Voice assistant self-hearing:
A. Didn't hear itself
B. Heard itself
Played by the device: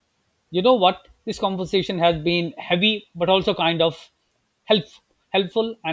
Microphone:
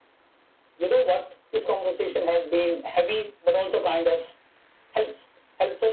B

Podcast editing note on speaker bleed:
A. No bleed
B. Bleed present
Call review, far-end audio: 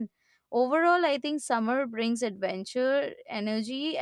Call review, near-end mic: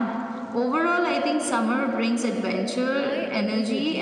B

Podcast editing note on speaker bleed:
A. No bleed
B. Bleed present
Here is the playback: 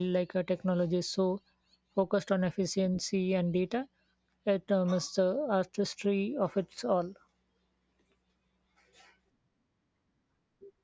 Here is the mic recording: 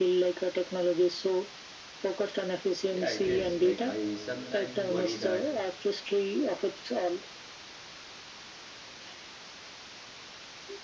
B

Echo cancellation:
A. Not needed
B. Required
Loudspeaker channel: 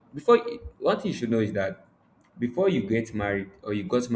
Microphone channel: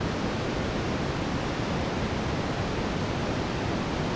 A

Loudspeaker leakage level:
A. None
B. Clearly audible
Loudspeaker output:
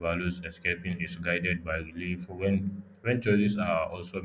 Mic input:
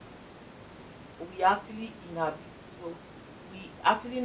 A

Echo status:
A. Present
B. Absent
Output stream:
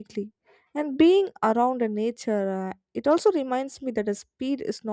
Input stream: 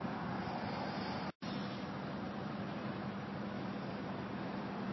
B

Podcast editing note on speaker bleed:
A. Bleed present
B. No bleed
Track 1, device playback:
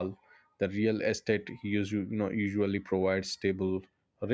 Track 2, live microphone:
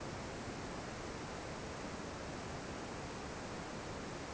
B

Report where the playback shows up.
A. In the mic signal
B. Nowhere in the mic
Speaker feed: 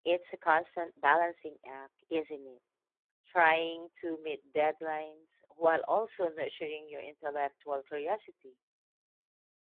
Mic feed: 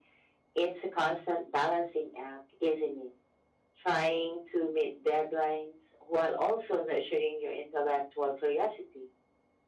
A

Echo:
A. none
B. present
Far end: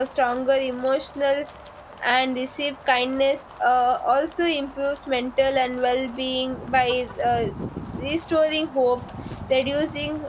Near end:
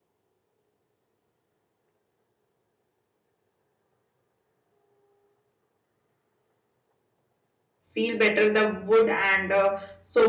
A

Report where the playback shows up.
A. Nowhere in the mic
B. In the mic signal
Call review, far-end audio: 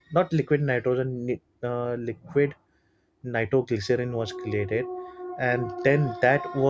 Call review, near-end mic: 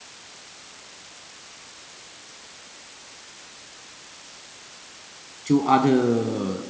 A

